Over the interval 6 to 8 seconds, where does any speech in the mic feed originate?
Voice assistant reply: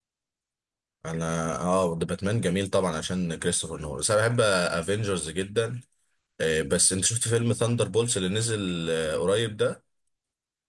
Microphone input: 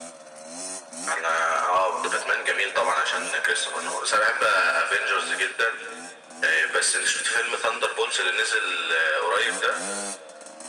echo only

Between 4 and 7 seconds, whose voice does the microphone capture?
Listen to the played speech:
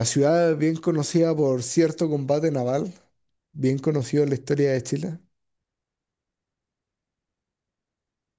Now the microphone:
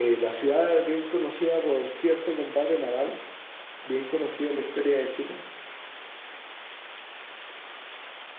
echo only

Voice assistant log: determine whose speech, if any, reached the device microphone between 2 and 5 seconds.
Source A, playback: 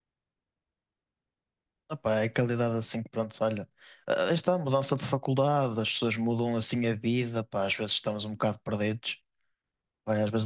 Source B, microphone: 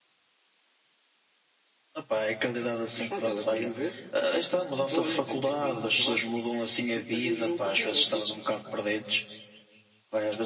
both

